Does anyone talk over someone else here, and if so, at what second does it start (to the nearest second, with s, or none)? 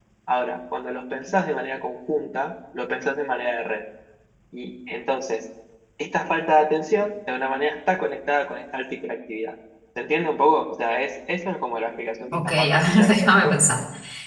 12 s